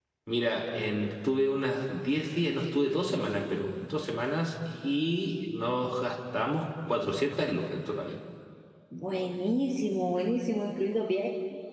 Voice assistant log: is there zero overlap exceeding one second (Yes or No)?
Yes